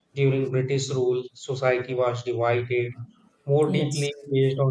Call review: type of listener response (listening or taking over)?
listening